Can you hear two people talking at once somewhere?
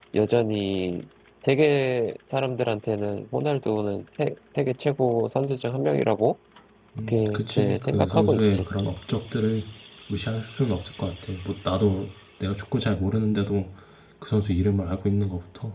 Yes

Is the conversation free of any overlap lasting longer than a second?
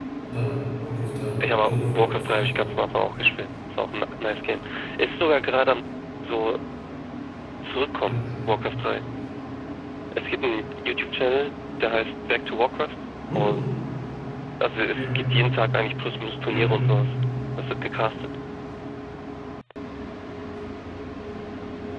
No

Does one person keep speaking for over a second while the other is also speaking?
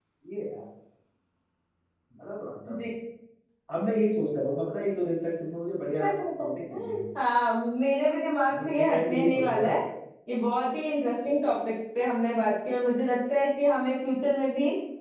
Yes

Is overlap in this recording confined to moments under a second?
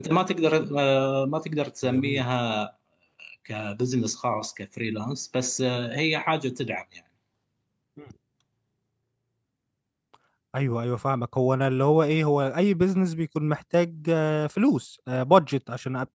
Yes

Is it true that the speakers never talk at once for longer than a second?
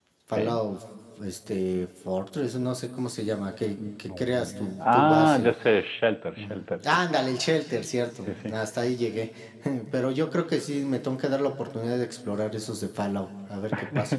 No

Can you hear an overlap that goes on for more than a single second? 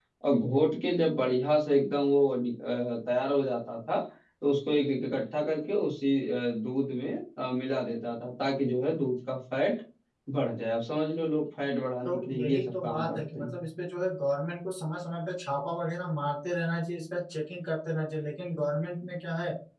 Yes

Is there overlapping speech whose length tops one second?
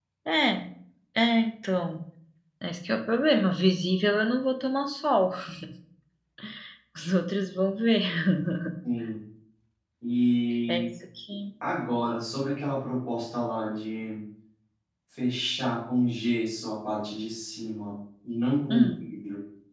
No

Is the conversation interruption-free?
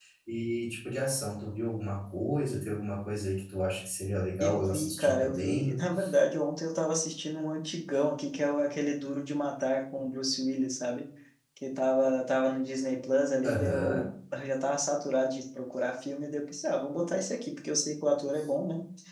No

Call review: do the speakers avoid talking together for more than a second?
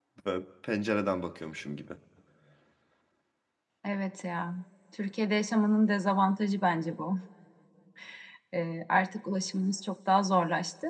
Yes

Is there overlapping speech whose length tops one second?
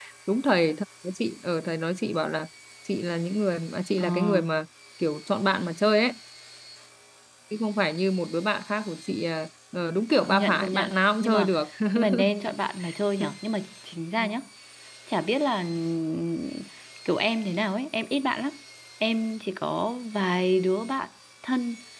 Yes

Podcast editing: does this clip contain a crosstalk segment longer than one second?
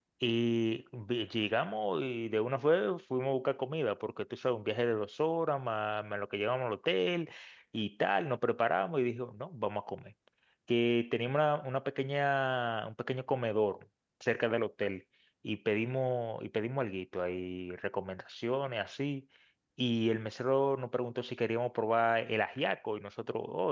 No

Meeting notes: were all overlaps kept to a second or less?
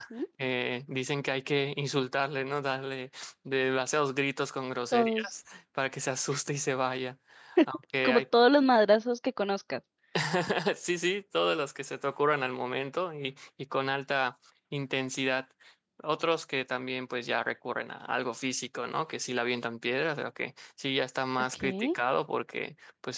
Yes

